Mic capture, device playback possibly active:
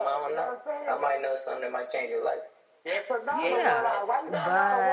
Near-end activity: present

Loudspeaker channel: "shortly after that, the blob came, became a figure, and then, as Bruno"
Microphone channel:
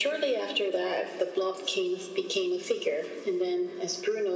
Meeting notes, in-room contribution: none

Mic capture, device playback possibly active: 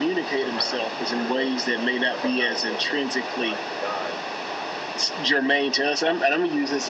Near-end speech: present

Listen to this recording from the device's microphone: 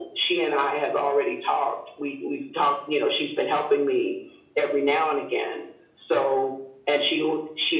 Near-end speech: none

